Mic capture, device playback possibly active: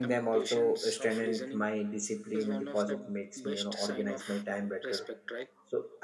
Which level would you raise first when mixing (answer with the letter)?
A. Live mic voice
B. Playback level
B